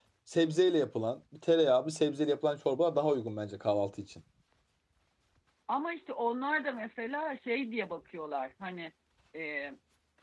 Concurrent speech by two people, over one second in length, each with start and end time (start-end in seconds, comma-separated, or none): none